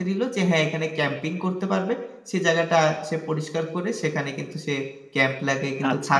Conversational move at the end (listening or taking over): taking over